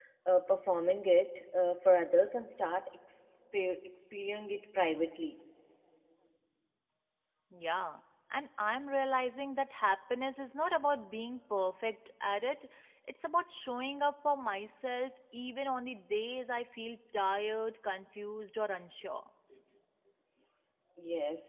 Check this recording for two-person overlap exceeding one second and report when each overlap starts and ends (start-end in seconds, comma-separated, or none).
none